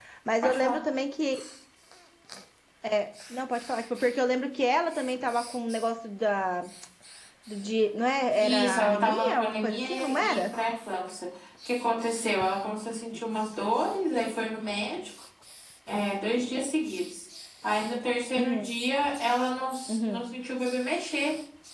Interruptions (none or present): present